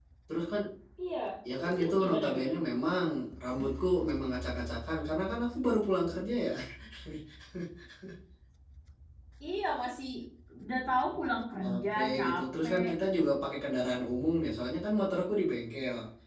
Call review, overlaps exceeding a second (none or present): present